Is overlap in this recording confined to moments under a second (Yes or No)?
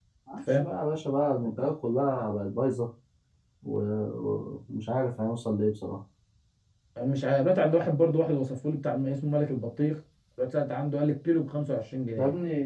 Yes